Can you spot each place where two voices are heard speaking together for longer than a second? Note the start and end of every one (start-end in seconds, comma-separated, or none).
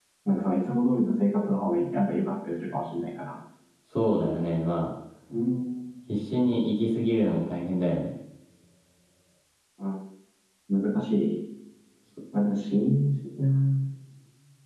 none